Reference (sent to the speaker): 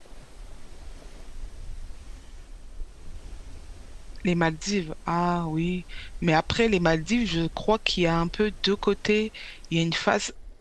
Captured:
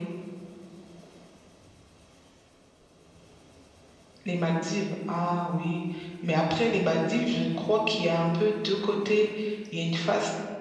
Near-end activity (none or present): none